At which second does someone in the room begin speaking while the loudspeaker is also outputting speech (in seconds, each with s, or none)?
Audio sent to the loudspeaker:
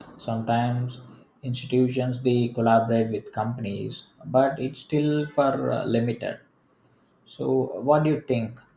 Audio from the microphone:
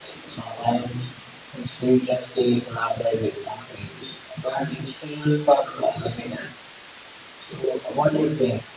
none